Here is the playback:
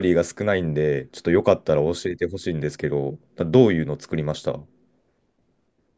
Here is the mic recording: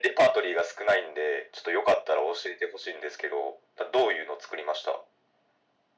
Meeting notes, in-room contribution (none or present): none